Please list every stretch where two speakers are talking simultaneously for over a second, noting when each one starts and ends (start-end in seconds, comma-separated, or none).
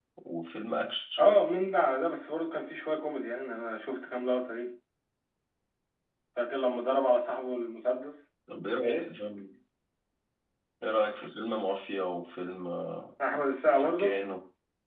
none